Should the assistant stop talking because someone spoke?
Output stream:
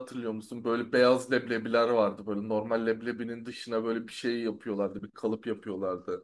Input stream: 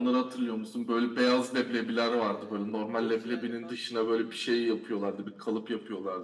Yes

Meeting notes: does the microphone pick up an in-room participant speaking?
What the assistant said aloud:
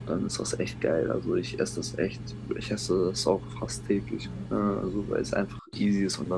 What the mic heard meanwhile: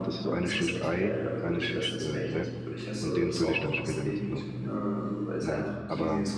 Yes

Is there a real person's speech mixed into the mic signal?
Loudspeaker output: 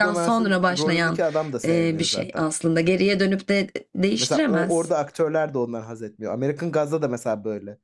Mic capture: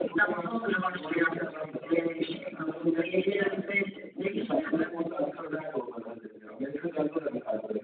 Yes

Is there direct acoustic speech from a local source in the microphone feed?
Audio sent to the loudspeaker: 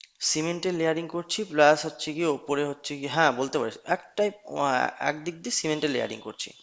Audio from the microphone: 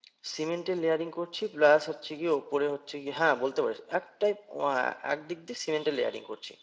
No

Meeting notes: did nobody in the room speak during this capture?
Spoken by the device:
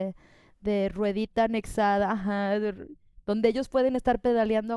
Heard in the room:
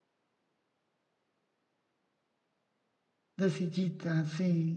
No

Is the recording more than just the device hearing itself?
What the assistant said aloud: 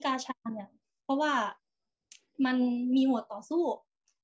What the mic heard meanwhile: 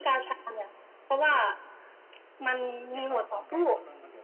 Yes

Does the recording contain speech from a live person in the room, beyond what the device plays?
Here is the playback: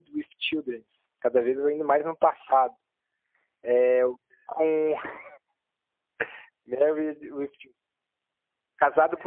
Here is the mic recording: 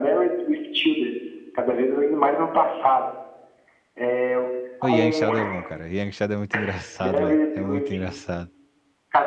Yes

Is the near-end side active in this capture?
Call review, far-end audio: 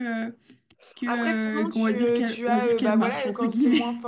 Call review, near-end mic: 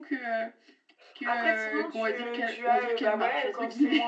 No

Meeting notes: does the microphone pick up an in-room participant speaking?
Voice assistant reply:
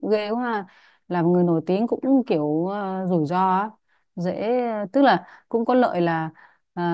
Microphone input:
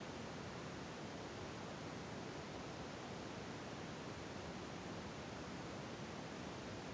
No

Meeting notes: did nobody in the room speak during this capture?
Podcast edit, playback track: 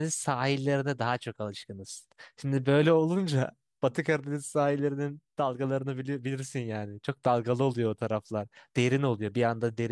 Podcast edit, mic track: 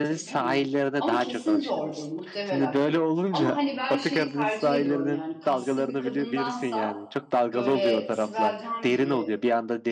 No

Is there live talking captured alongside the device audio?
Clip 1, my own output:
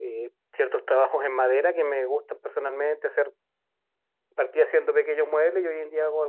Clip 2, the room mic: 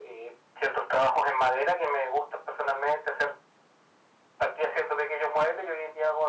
No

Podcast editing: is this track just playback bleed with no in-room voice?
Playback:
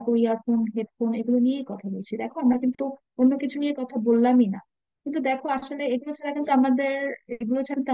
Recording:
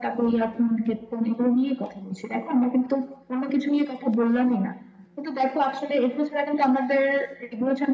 Yes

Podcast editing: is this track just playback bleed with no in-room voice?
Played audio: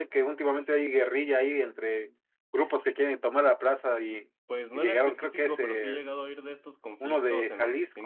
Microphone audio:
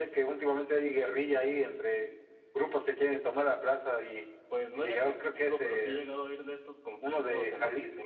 Yes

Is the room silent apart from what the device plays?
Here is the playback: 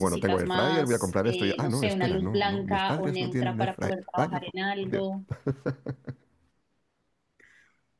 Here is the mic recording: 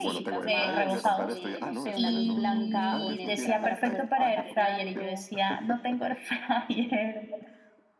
No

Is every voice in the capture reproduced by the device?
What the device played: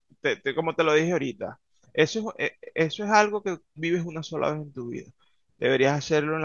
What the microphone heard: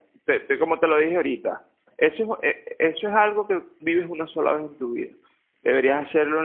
Yes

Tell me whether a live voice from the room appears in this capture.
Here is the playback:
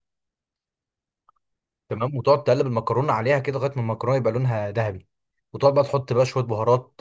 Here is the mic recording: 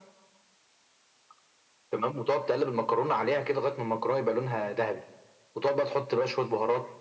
No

